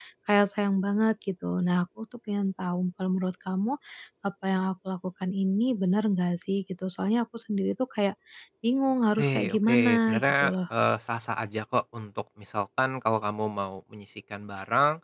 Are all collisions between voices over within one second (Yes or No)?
No